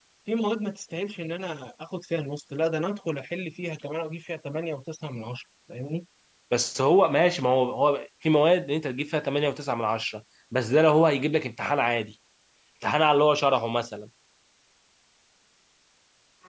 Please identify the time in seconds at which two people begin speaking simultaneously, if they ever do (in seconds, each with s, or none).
none